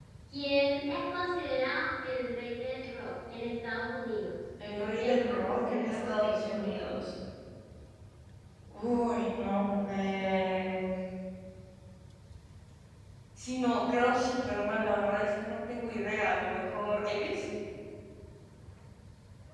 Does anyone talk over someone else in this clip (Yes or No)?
Yes